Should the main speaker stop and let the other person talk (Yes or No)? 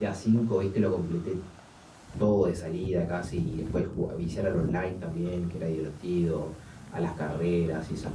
No